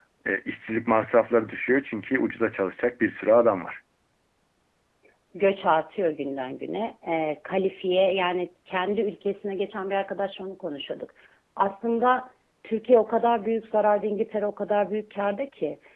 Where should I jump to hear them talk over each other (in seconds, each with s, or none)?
none